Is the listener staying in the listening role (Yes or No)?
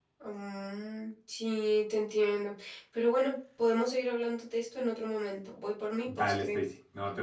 No